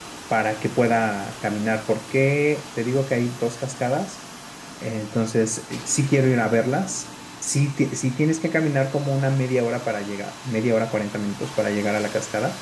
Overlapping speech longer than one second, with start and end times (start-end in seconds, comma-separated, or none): none